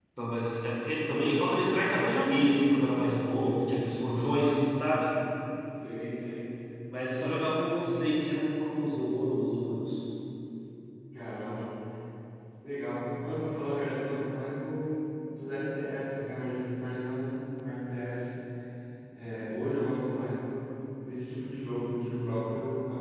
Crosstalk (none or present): none